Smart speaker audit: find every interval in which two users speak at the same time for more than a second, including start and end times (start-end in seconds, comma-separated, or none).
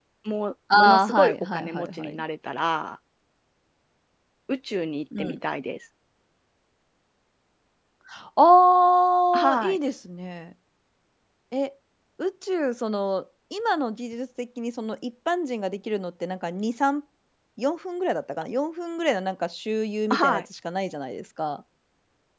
0.8-2.2